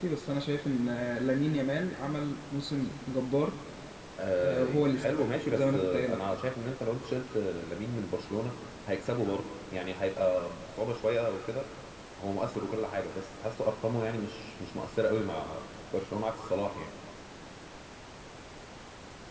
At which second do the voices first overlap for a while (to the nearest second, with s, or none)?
4 s